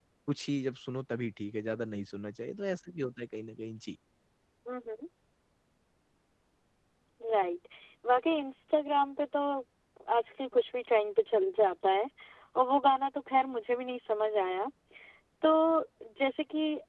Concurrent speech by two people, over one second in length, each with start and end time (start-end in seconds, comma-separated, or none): none